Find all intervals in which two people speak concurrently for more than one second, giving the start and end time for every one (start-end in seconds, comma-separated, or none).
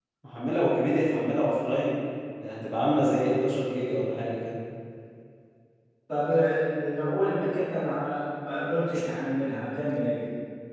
none